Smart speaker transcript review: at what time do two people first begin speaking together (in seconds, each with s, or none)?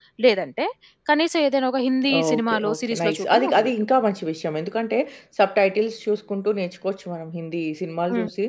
2.0 s